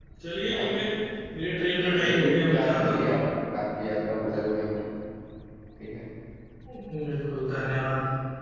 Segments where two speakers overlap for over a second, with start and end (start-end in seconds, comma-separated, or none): 2.0-3.2